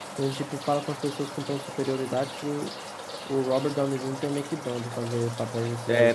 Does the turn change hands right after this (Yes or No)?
Yes